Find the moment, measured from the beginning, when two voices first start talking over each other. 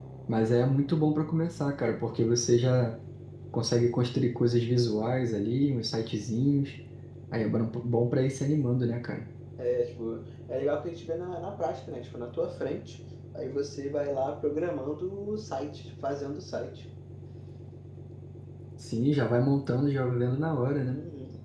none

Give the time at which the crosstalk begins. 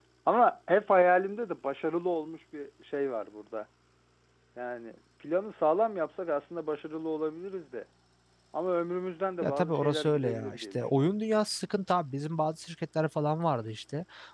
9 s

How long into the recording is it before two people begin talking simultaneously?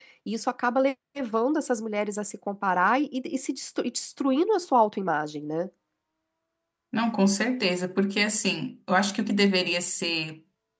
none

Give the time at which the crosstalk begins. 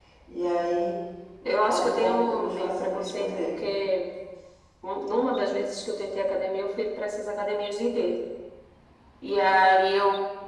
2 s

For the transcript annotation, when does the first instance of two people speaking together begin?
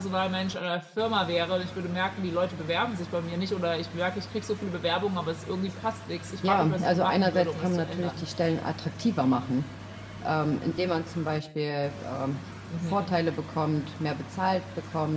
6 s

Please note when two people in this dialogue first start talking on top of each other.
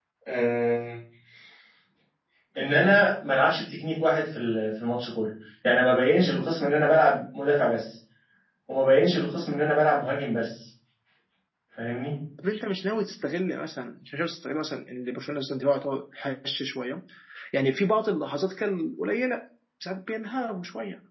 none

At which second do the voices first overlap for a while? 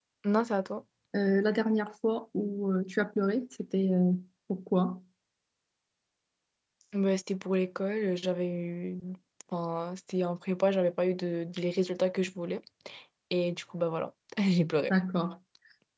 none

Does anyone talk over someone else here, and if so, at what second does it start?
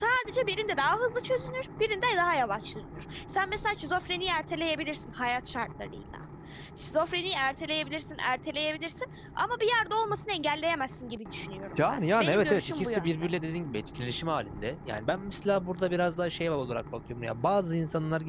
12 s

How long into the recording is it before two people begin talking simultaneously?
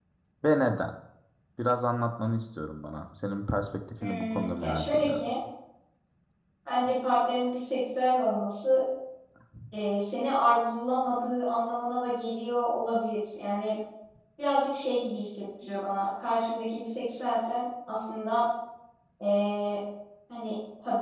4 s

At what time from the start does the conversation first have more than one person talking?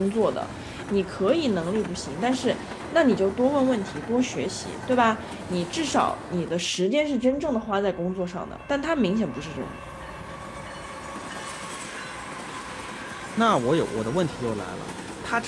none

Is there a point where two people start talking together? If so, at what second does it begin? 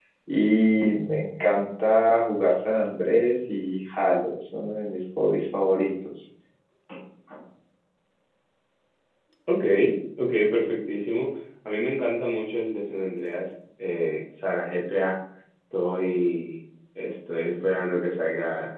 none

